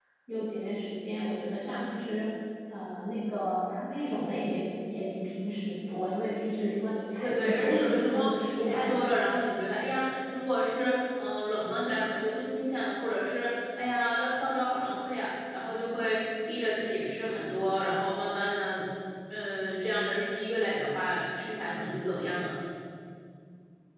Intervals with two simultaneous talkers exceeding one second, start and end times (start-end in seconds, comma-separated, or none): 7.2-8.9